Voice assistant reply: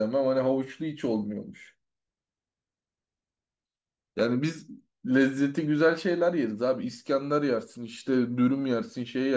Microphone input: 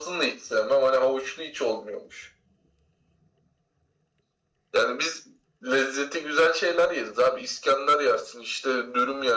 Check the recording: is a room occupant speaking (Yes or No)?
No